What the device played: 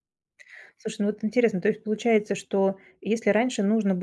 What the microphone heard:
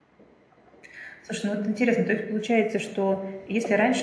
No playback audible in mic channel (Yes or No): No